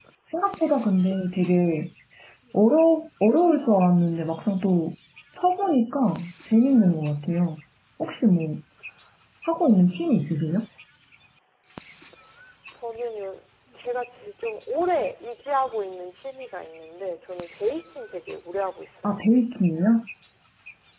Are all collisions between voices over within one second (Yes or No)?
Yes